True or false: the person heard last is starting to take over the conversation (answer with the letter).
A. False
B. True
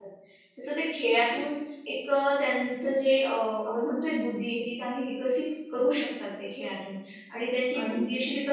A